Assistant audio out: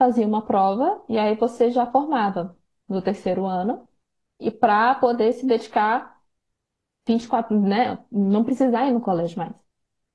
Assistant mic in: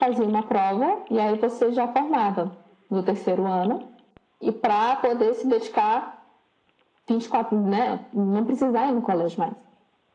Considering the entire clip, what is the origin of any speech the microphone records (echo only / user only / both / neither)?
echo only